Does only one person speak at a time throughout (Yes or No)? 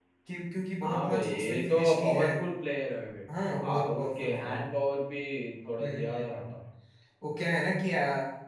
No